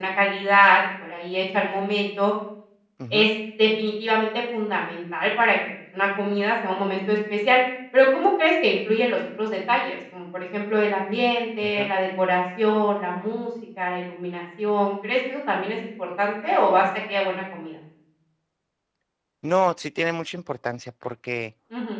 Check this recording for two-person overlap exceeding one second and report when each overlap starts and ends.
none

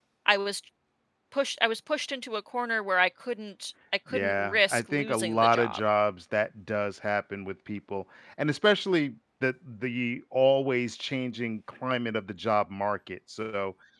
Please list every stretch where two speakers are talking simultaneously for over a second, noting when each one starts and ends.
4.1-5.8

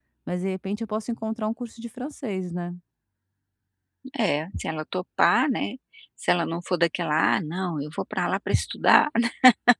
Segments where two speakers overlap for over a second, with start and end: none

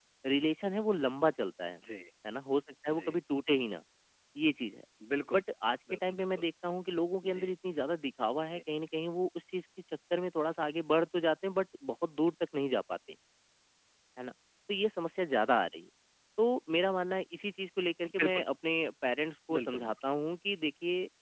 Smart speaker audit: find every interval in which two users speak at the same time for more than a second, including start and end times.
none

